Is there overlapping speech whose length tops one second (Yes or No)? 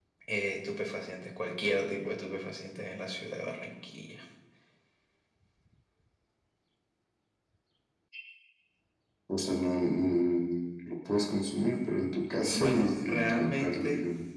Yes